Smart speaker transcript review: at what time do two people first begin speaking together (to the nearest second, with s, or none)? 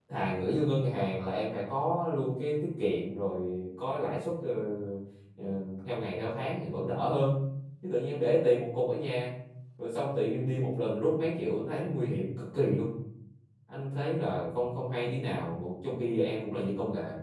none